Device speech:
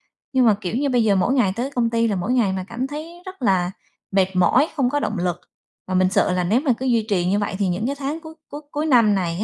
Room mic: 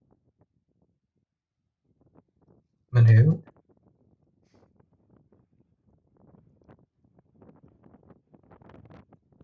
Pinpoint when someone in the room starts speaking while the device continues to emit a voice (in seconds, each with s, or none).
2.9 s